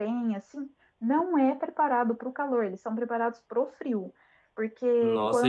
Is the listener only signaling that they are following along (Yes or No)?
No